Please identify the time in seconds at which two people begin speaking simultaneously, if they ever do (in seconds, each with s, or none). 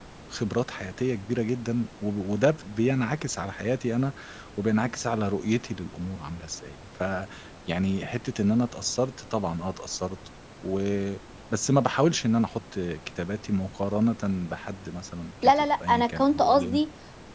15.4 s